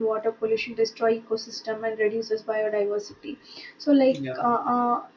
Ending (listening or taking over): listening